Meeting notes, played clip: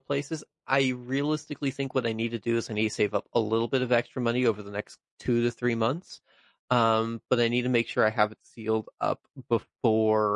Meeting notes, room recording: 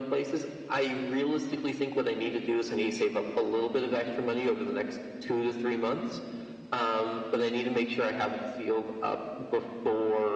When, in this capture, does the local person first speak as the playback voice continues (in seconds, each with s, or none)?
none